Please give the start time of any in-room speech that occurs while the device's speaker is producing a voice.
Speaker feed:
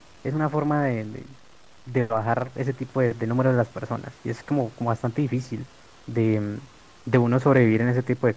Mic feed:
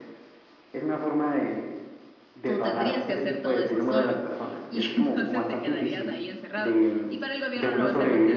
2.4 s

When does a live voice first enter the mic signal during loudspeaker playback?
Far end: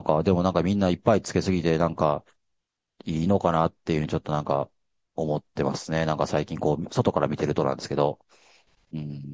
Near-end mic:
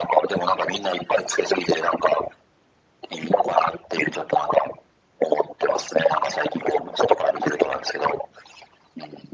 none

